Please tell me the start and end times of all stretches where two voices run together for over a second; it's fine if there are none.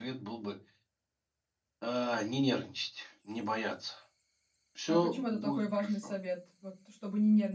4.9-6.1

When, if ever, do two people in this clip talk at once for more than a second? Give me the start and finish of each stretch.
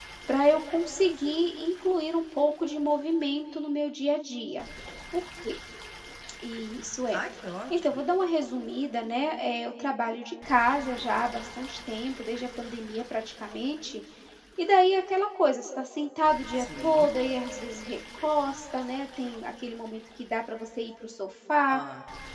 none

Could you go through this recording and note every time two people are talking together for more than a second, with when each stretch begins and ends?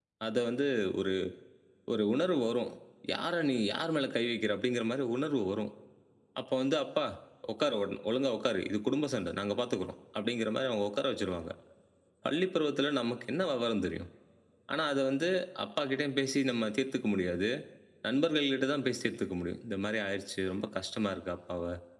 none

